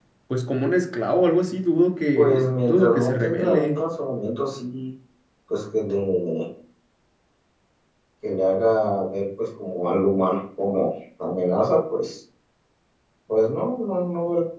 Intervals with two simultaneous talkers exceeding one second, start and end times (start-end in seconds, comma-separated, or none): 2.2-3.8